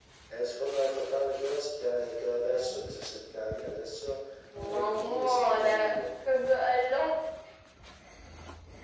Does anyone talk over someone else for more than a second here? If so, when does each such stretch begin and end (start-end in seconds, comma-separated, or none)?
4.7-6.0